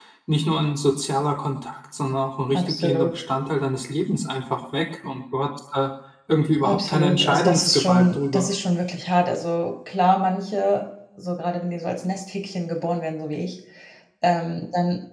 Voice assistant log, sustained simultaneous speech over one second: present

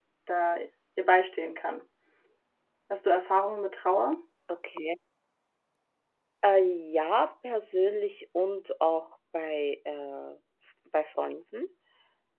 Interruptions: none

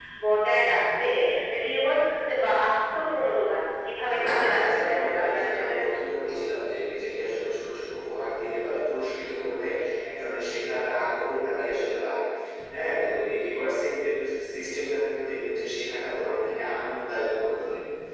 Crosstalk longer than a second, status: present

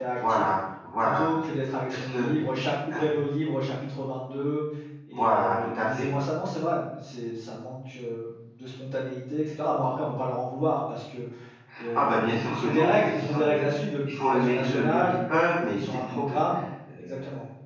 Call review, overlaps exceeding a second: present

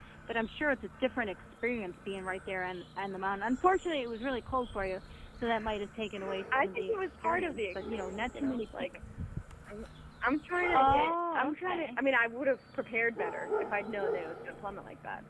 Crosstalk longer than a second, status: present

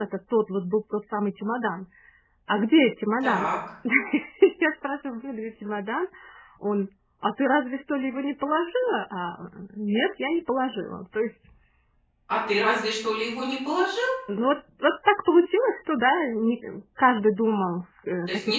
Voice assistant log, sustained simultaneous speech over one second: none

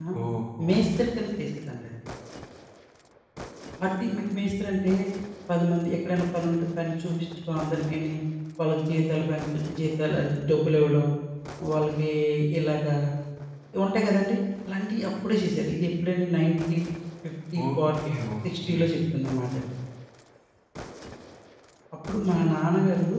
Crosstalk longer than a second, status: none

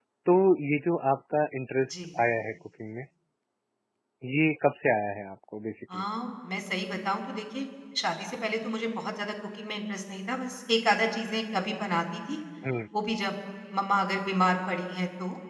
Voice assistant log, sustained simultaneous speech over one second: none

